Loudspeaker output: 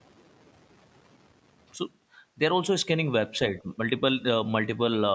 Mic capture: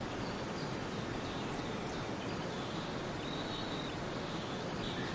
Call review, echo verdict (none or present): none